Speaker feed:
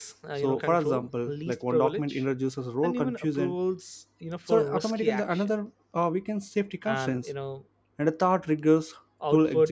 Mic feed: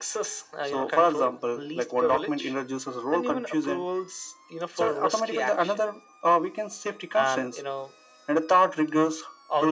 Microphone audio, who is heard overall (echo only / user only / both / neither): echo only